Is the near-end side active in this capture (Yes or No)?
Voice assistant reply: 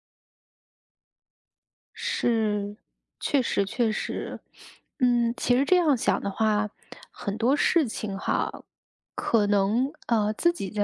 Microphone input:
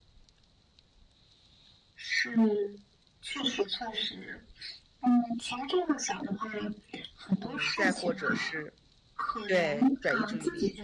Yes